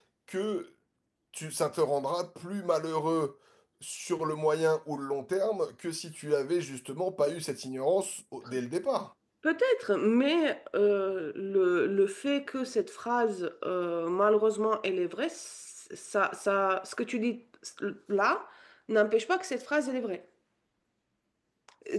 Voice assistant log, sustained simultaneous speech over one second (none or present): none